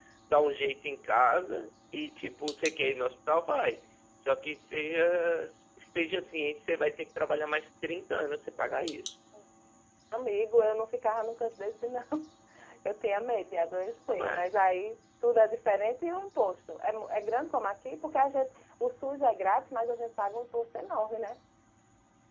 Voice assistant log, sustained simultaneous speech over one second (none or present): none